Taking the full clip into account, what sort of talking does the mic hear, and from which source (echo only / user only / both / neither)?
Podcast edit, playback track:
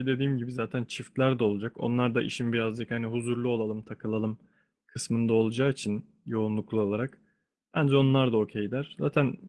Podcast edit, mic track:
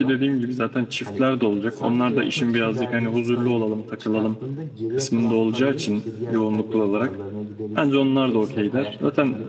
both